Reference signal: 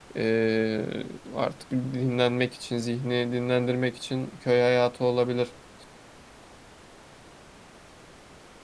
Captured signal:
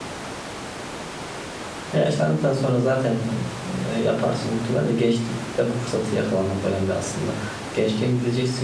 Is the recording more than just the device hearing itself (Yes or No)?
Yes